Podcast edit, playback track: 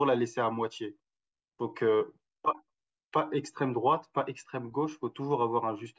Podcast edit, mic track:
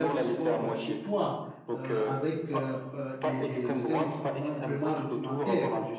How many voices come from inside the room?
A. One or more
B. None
A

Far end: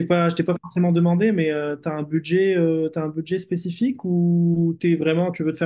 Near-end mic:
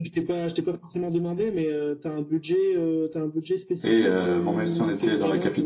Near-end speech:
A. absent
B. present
B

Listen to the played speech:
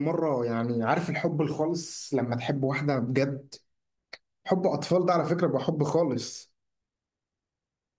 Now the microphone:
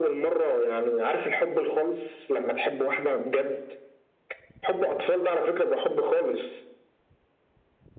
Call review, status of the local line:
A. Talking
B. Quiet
B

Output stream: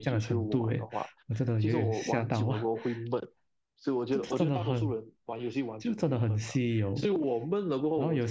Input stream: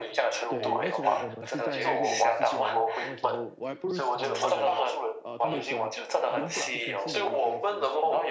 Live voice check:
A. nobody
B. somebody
B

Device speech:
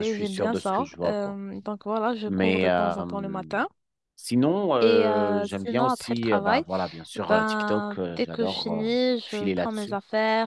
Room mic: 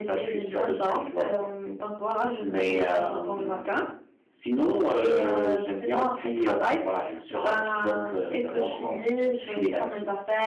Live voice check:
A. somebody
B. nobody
B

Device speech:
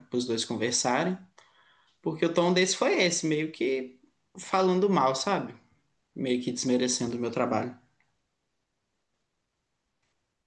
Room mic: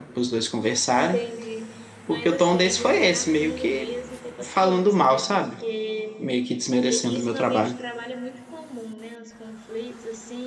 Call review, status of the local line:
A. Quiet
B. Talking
B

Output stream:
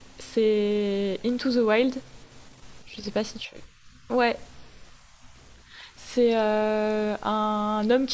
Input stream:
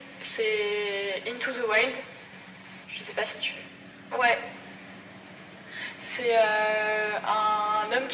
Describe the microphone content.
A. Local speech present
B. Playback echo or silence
B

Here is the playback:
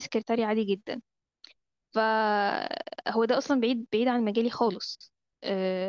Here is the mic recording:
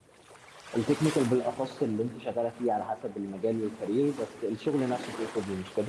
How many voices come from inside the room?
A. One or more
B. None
A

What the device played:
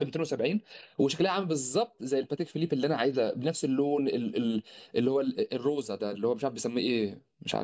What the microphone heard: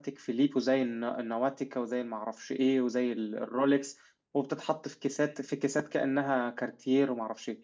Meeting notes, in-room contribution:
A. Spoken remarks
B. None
A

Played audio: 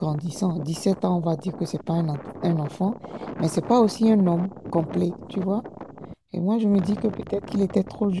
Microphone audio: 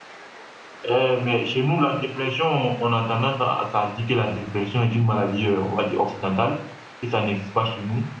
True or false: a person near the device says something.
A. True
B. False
A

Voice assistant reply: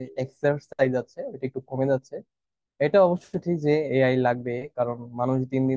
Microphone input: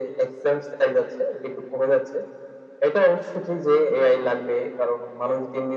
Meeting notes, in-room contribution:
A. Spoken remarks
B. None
B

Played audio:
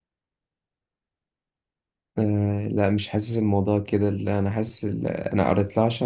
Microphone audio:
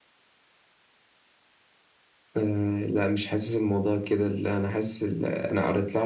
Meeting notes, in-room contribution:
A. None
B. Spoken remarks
A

